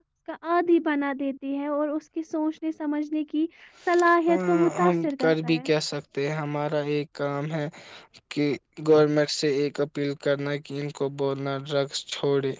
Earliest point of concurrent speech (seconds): 4.3 s

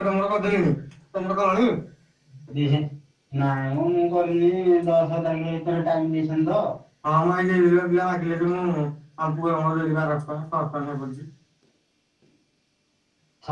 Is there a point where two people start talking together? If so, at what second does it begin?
none

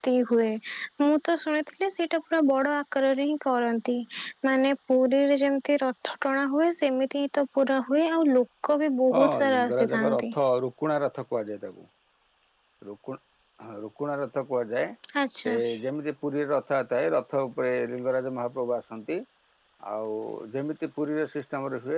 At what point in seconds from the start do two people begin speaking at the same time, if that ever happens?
9.1 s

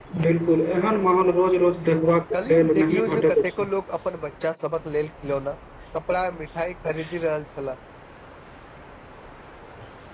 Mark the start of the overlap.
2.3 s

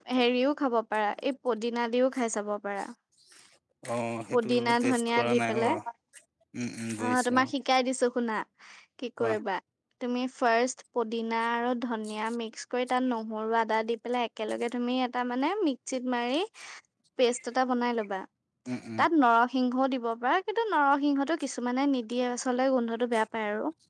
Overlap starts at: 4.3 s

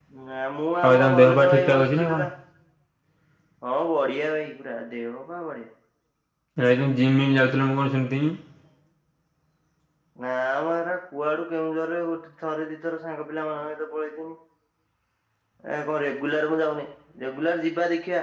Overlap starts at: 0.8 s

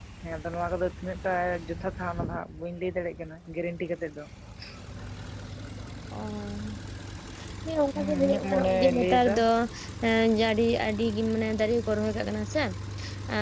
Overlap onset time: 8.0 s

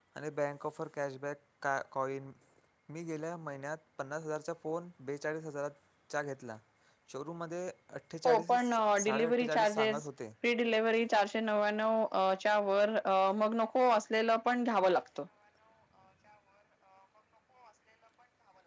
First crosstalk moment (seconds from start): 8.2 s

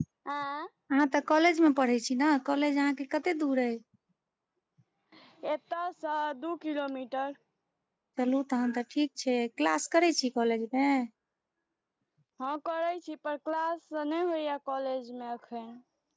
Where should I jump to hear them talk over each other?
none

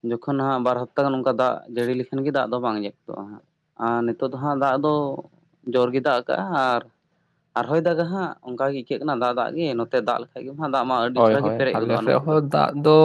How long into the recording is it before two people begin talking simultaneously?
11.2 s

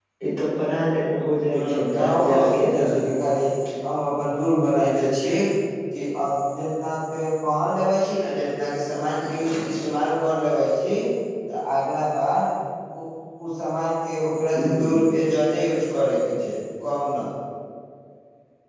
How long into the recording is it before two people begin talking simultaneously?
1.5 s

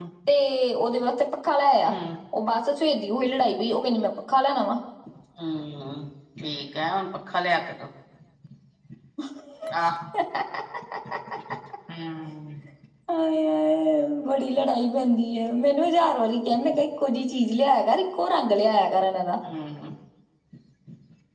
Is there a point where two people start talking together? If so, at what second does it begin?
none

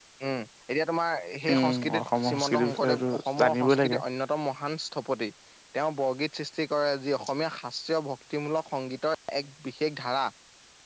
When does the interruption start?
1.5 s

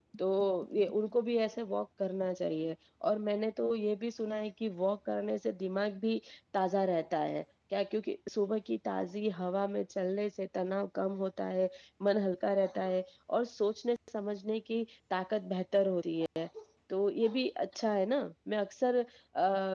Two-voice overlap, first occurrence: none

